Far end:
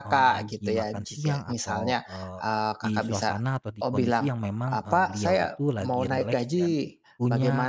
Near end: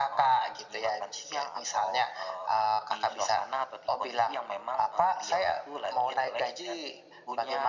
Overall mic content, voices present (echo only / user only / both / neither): echo only